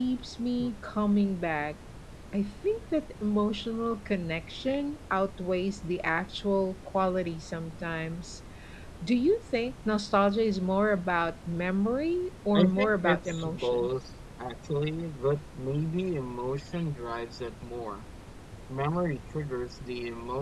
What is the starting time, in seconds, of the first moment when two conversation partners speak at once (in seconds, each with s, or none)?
12.5 s